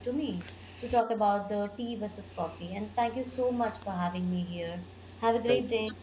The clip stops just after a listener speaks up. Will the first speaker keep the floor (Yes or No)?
No